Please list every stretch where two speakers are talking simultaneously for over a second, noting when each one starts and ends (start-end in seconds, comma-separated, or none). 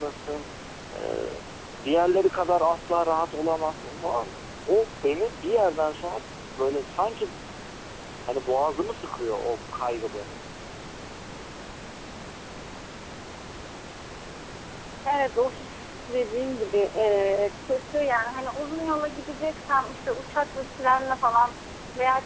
none